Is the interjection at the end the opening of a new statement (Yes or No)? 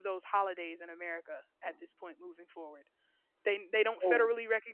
No